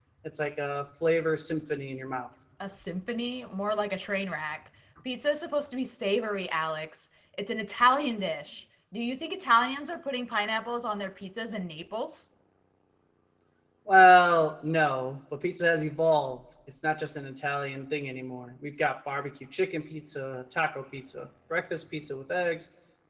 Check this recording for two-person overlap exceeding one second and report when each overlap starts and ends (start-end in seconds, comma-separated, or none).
none